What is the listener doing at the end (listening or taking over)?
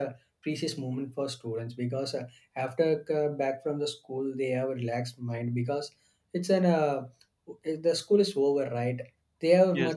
listening